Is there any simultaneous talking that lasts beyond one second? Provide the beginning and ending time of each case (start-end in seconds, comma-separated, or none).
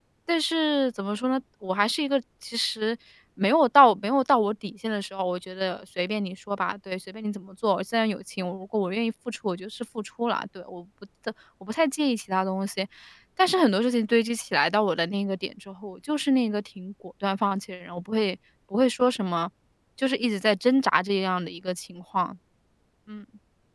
none